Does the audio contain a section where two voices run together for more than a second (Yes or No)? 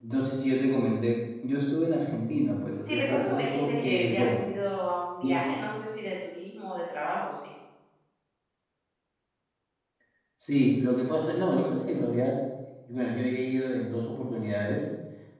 Yes